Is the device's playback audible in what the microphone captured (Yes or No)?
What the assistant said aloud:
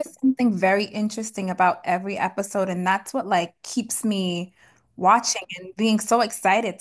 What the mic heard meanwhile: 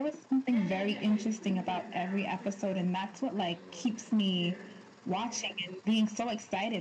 Yes